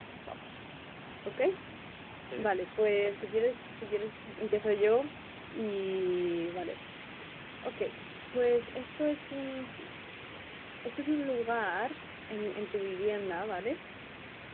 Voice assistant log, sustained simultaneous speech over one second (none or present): none